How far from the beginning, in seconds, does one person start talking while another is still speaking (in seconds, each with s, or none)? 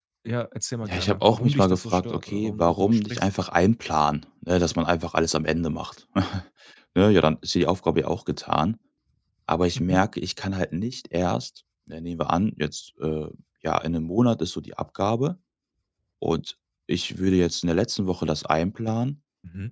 0.8 s